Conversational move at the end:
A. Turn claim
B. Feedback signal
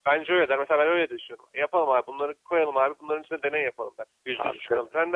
B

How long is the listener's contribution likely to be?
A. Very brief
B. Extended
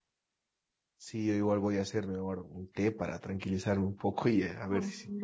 B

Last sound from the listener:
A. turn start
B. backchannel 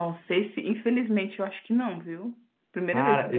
A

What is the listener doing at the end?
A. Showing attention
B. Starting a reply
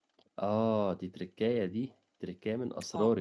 A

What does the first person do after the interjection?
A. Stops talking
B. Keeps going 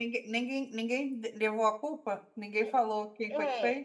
A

